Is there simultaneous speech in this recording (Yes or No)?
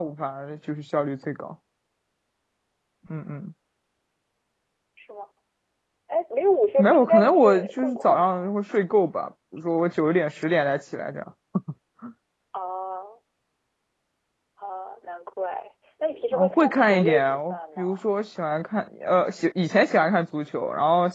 Yes